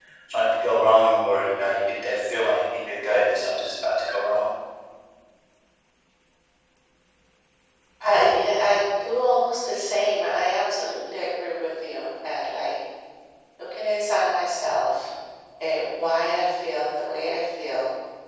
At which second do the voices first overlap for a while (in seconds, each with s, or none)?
none